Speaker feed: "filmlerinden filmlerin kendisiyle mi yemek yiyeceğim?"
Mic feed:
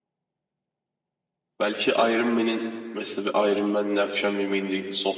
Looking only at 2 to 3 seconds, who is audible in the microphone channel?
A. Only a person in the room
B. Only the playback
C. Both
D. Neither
A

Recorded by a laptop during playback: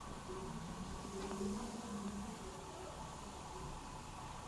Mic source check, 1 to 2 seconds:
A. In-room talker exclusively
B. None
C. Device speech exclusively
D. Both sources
B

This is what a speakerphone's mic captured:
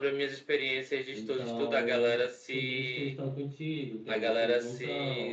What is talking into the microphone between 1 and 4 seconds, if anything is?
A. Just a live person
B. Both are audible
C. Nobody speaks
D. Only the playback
B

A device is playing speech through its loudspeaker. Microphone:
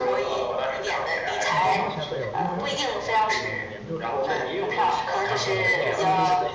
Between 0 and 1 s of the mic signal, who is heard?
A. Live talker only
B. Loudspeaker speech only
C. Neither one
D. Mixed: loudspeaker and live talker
B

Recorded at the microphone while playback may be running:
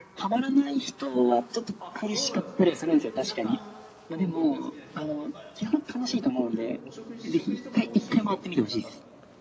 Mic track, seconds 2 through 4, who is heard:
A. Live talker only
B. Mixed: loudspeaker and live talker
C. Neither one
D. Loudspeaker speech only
B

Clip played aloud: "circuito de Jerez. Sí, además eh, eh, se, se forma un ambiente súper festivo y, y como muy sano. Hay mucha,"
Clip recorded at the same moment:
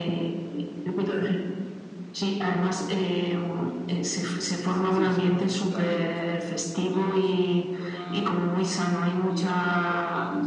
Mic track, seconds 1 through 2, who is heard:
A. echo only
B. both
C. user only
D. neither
A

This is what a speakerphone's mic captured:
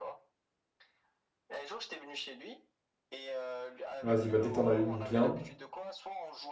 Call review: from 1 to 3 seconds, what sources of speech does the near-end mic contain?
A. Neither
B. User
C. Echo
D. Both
C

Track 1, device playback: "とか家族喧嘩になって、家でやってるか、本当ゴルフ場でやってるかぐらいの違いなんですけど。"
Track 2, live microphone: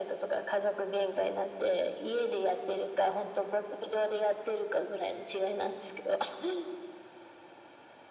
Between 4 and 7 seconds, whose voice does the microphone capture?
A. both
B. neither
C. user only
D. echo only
D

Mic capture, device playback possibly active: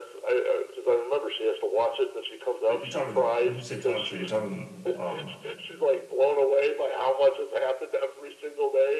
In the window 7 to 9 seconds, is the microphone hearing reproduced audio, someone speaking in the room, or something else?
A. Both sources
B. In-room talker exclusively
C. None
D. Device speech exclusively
D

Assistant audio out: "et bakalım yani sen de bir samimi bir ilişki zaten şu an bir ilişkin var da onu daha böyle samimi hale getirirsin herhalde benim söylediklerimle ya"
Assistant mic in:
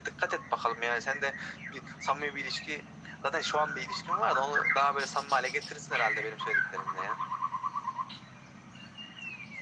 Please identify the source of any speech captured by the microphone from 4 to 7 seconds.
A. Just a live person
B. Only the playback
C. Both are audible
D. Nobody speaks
B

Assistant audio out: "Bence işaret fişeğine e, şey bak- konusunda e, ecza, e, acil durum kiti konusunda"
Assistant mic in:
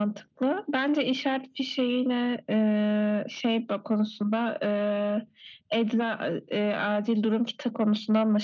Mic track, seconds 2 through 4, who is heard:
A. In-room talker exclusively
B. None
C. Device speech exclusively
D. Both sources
C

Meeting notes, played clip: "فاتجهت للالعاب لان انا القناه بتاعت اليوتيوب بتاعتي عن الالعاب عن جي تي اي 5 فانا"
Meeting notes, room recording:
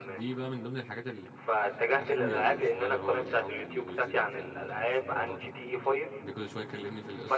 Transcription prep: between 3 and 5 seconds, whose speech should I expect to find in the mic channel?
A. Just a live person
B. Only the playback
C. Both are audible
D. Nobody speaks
C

